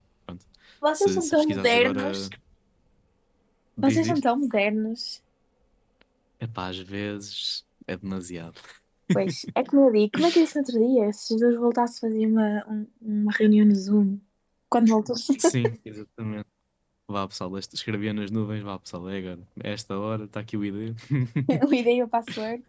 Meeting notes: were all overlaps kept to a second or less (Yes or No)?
No